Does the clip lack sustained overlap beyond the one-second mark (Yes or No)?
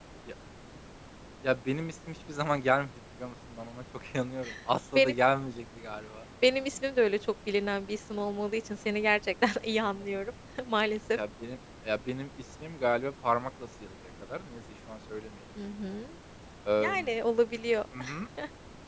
Yes